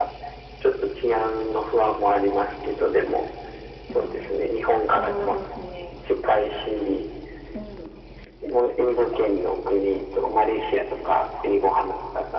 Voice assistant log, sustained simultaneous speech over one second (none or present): present